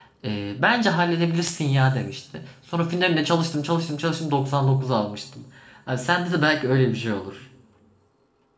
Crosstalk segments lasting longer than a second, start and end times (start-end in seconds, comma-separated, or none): none